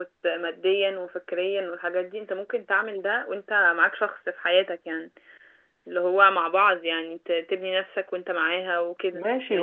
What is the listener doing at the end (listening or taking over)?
taking over